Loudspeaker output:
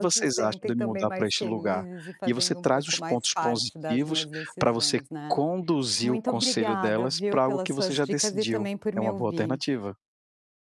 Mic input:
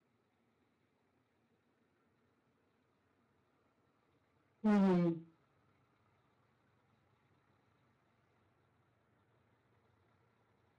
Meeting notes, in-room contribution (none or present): present